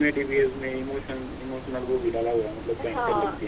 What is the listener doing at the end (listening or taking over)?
taking over